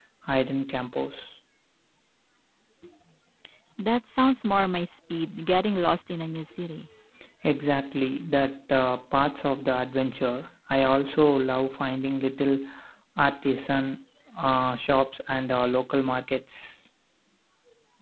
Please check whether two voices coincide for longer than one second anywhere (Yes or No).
No